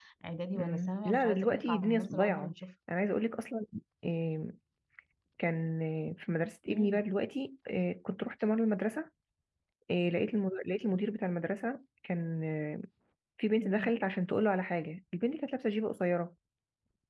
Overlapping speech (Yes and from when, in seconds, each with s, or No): Yes, from 0.6 s